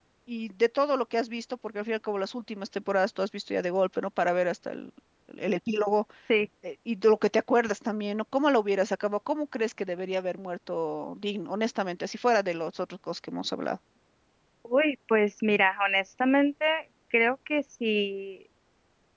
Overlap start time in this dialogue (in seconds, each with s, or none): none